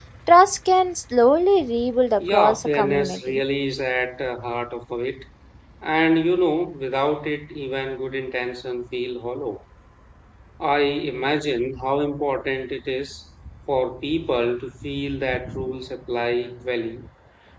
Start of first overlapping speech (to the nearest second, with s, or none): 2 s